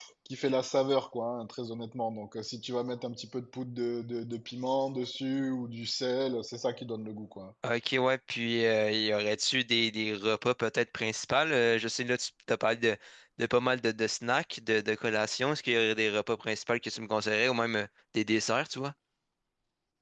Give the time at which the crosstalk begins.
none

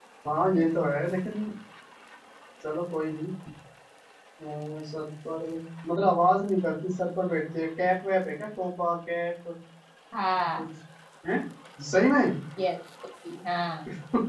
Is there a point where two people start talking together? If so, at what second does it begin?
none

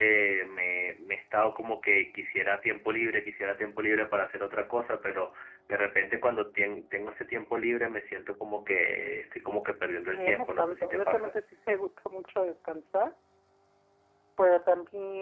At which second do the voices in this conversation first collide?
10.1 s

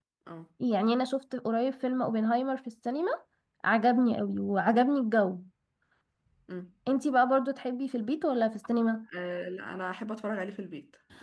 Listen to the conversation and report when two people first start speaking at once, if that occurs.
none

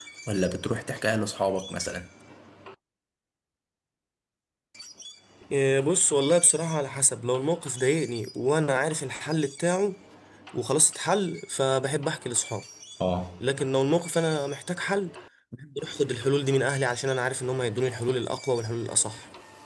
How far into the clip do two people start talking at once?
none

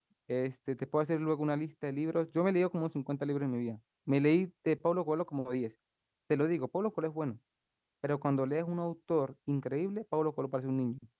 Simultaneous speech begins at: none

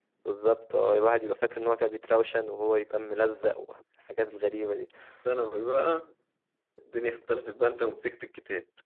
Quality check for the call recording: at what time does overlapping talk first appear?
none

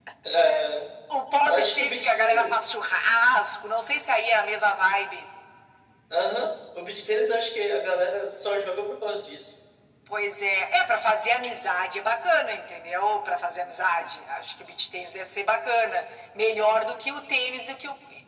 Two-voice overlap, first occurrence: 1.5 s

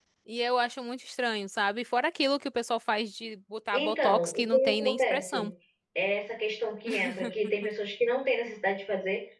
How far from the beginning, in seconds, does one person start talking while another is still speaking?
3.7 s

